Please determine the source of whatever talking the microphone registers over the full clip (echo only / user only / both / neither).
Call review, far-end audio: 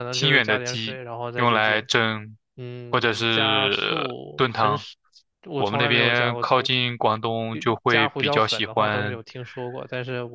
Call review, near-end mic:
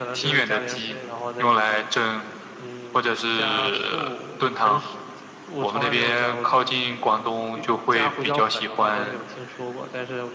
echo only